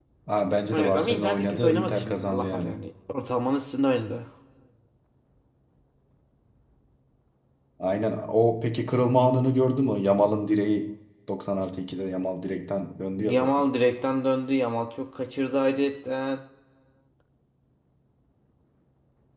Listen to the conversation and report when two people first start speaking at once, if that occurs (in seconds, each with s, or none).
0.7 s